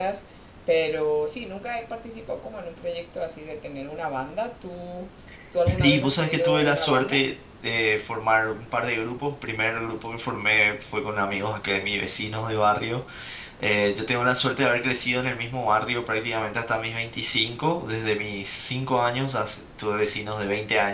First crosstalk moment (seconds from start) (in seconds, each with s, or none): 5.7 s